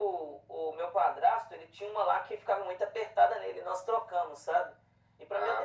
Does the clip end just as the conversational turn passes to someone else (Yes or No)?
No